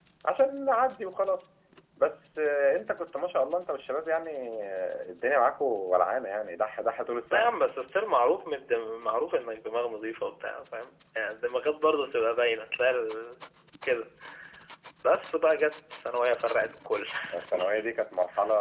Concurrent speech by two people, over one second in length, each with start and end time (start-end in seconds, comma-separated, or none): none